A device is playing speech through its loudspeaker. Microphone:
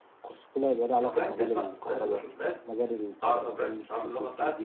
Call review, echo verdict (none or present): present